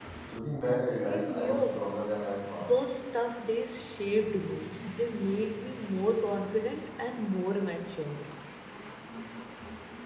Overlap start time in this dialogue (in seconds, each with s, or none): 0.6 s